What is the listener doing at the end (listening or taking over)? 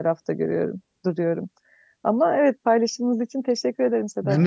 taking over